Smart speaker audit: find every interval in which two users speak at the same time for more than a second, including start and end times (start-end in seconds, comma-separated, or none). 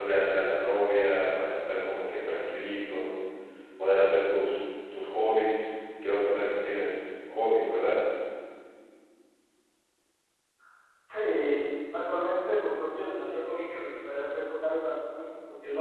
none